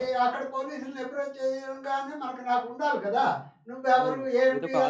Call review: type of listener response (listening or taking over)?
taking over